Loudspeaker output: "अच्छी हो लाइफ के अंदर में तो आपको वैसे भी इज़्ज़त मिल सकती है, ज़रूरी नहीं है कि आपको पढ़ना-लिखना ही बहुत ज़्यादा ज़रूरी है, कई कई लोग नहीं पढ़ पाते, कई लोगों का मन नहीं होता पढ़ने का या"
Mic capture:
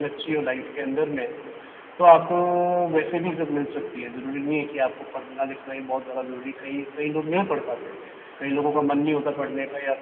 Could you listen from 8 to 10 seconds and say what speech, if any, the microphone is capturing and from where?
echo only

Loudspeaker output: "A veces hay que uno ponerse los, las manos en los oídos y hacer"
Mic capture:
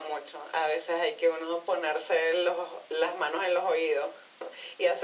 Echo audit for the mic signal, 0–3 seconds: echo only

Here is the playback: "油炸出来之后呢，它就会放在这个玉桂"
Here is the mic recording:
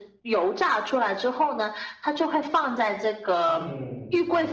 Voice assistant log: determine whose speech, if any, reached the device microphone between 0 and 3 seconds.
echo only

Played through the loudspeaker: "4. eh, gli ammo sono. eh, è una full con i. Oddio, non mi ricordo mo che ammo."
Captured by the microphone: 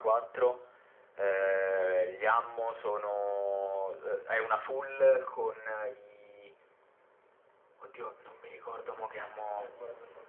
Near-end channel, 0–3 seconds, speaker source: echo only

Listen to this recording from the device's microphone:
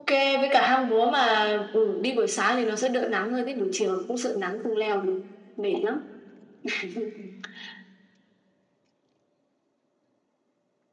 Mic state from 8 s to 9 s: neither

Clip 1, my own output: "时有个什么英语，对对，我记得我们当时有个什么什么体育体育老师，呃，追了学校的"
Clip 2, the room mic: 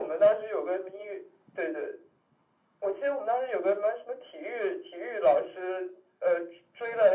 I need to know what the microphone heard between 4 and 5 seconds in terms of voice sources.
echo only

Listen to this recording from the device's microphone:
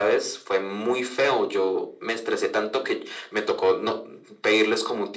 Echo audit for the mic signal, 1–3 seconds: echo only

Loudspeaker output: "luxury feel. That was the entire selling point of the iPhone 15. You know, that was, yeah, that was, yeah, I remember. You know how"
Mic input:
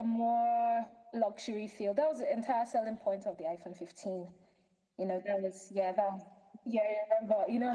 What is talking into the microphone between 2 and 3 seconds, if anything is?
echo only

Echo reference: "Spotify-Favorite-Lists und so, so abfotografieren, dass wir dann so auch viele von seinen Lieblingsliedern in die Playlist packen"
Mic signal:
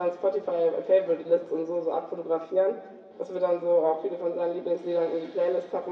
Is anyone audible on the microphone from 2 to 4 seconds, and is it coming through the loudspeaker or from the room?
echo only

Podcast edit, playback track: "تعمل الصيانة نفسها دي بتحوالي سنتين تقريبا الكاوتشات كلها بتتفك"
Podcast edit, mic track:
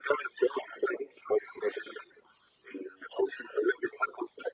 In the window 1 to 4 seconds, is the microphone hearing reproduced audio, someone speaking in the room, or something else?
echo only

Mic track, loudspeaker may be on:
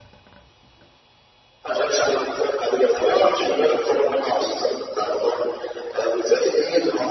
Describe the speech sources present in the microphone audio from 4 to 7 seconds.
echo only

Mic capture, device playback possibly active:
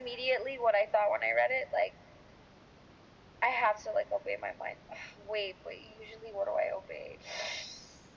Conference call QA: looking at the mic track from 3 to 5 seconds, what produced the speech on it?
echo only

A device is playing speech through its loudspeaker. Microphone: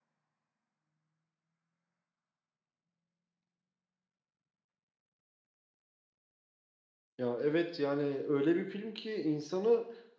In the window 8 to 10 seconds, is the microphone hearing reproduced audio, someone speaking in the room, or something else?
user only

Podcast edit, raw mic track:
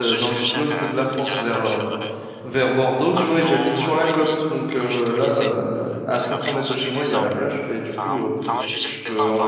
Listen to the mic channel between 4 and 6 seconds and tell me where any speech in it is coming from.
both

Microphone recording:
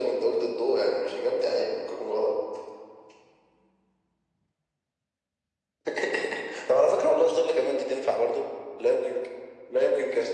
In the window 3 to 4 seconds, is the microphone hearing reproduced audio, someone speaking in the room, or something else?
neither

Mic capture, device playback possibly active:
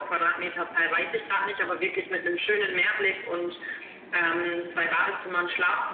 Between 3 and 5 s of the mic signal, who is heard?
echo only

